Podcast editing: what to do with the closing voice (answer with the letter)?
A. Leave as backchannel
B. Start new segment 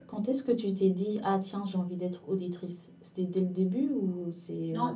B